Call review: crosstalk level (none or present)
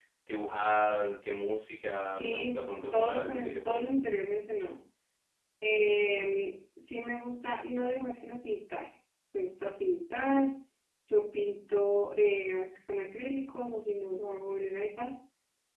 present